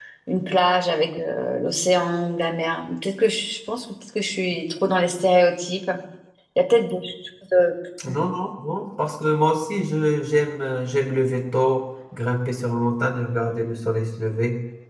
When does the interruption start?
none

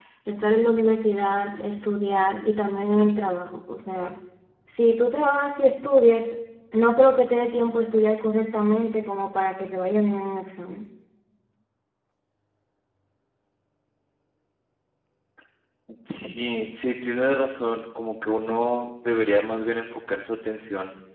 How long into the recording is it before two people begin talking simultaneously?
none

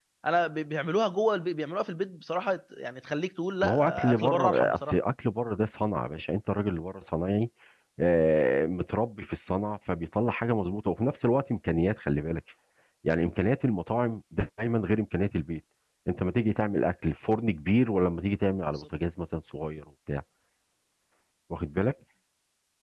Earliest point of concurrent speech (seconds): 4 s

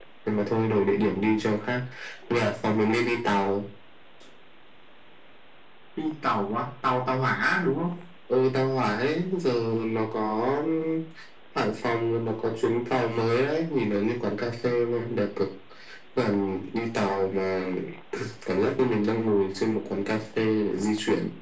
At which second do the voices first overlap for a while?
none

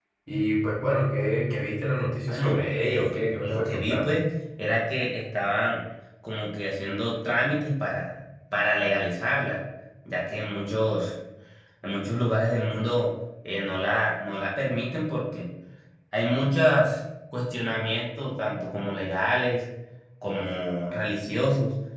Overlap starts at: 2 s

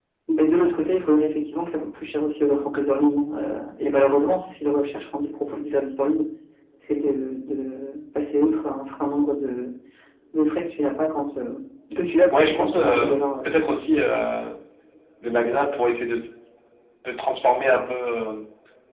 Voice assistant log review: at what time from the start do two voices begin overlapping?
12 s

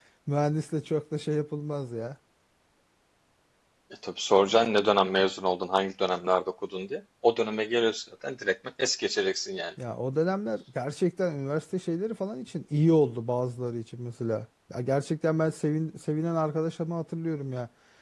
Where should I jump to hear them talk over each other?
none

